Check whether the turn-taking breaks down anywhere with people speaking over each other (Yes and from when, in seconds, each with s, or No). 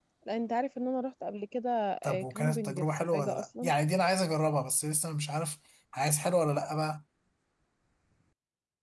Yes, from 2.0 s